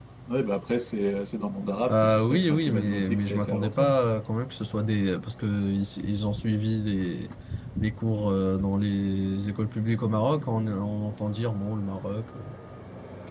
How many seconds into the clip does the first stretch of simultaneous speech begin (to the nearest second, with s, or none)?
2 s